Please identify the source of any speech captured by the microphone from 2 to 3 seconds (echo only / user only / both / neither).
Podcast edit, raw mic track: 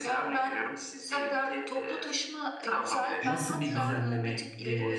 echo only